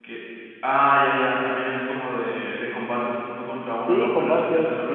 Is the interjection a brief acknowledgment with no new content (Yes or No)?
No